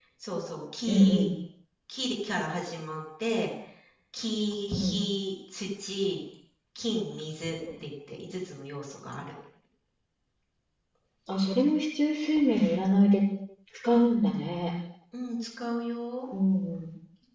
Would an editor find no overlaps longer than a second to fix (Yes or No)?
Yes